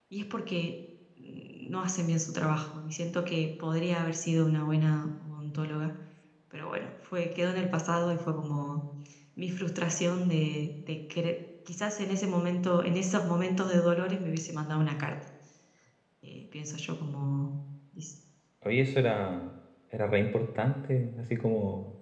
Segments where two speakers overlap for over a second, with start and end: none

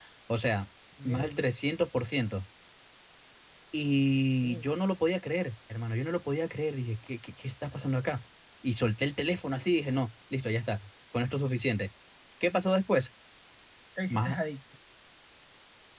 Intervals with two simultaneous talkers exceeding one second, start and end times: none

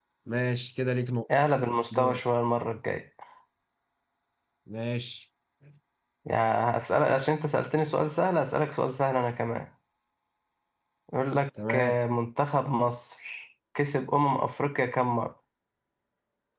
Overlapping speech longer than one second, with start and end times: none

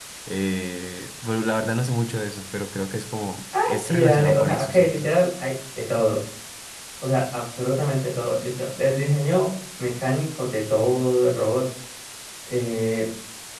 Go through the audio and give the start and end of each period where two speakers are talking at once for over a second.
3.6-5.1

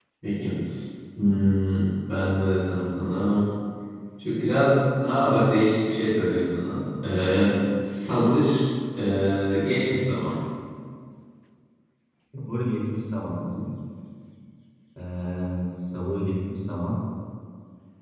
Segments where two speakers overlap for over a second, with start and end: none

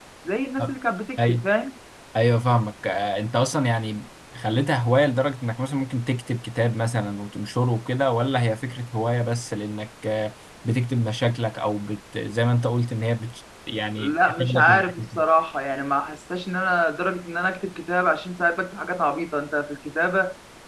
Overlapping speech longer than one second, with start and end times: 14.0-15.2

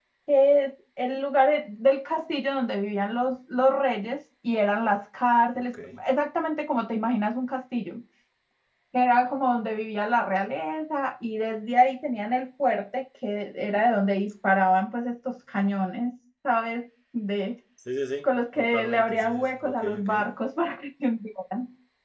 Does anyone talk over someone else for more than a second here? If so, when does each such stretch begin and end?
18.2-20.1

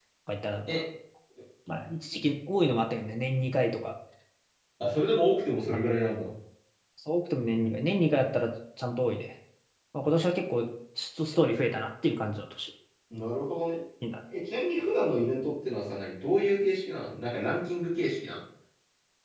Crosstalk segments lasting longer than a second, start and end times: none

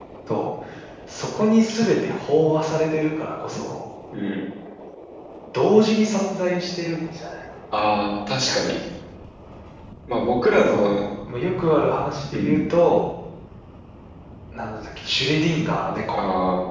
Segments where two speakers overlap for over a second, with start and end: none

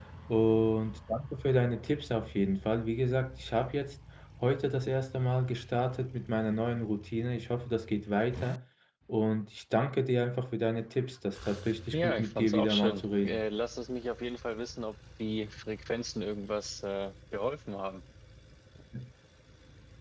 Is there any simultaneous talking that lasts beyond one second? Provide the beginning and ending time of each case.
11.9-13.4

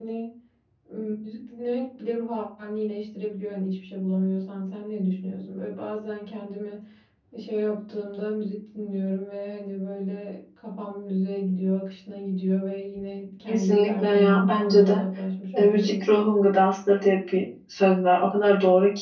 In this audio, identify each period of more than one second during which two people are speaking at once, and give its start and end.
13.5-15.0

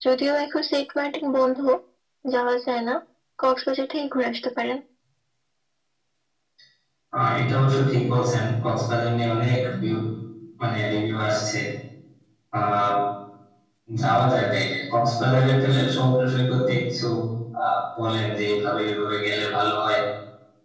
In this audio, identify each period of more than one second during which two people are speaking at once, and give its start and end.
none

